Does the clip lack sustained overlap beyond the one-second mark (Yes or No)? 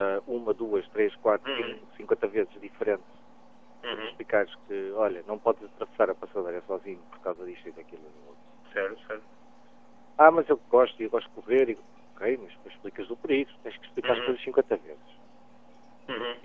Yes